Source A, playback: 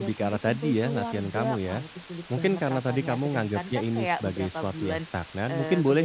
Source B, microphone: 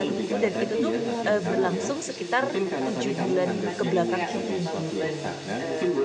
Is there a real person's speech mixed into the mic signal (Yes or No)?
Yes